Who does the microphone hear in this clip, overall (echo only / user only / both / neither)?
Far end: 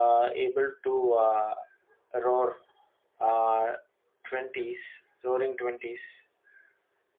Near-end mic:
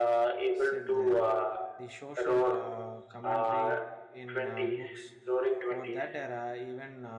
both